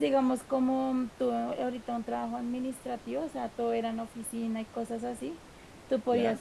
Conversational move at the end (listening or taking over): listening